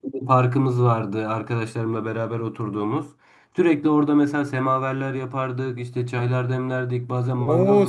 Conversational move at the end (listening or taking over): taking over